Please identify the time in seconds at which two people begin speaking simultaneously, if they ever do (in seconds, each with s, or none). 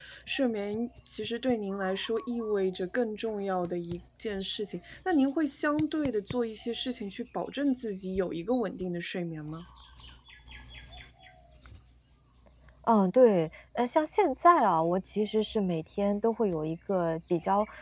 none